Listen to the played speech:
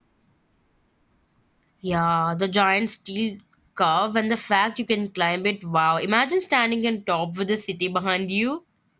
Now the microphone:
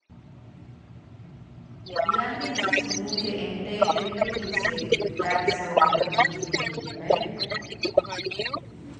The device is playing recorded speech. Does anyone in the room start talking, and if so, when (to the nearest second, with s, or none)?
2 s